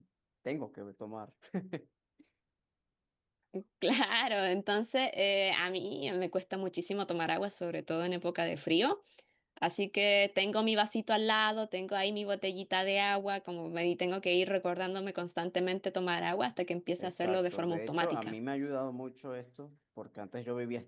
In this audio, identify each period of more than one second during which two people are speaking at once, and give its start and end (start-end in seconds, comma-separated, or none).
17.0-18.3